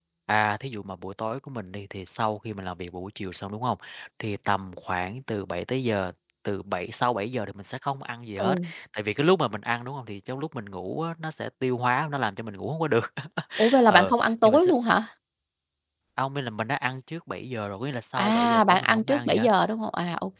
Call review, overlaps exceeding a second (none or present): present